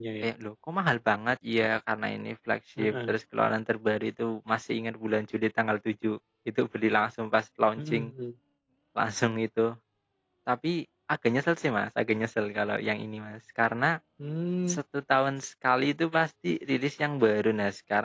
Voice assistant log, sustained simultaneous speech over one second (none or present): none